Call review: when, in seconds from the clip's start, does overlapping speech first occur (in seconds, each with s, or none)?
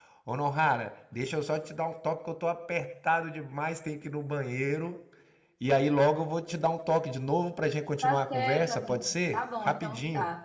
8.0 s